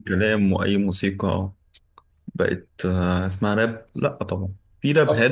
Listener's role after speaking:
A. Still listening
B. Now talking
A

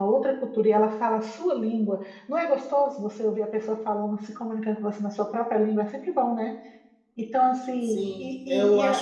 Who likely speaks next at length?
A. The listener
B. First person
A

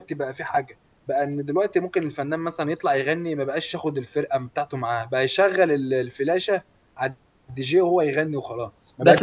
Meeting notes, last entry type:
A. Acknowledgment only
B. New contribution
B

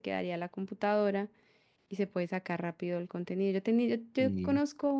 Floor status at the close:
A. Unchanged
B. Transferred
A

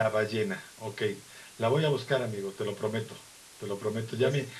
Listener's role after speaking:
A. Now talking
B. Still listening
B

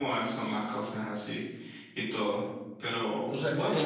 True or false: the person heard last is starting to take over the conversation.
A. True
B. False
A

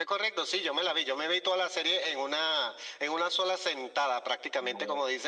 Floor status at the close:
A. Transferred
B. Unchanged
B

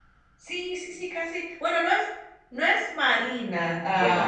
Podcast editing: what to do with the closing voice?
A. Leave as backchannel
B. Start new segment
B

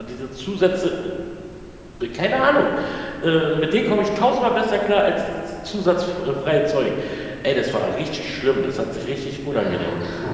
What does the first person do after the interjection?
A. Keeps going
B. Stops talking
B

